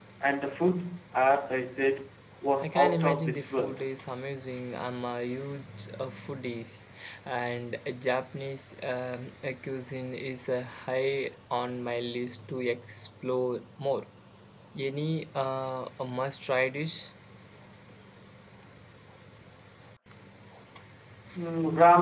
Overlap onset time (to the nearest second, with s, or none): 3 s